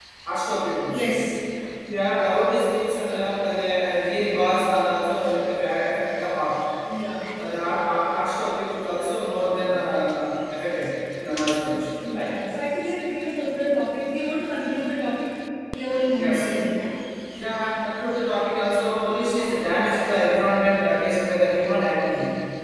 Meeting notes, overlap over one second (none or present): none